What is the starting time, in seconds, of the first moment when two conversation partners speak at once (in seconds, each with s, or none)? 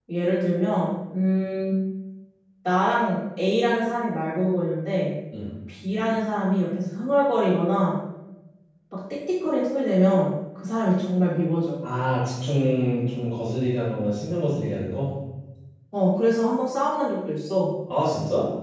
none